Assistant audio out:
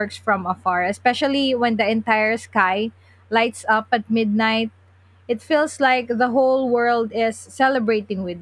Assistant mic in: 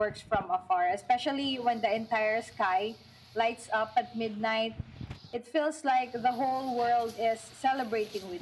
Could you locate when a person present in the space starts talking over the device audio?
none

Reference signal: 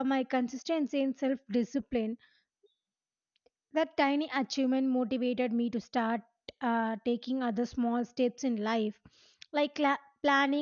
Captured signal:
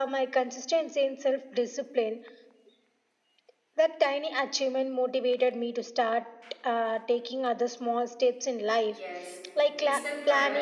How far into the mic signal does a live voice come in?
9 s

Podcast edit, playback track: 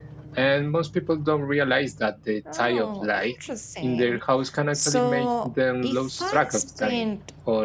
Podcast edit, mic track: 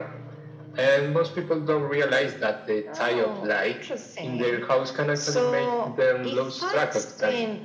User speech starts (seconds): none

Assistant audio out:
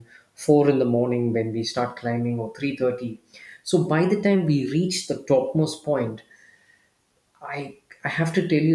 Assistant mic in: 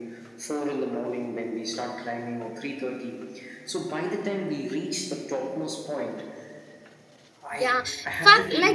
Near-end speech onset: 8 s

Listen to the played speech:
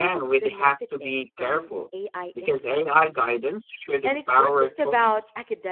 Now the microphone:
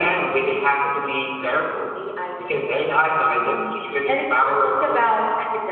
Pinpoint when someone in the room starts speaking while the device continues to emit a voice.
none

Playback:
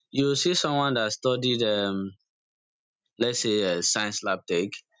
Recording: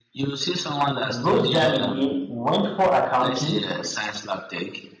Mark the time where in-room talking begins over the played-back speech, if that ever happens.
1 s

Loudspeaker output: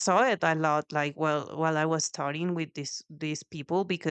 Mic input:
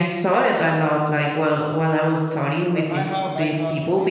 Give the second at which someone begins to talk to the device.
3 s

